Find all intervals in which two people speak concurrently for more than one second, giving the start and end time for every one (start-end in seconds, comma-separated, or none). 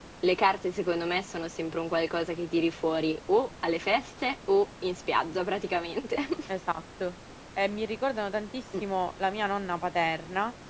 none